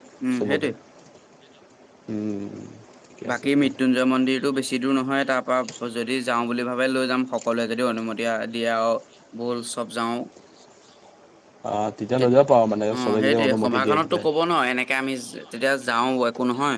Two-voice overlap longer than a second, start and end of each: 12.9-14.2

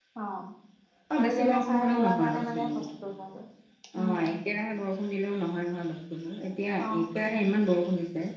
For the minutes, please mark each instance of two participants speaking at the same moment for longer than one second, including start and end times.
1.1-2.9

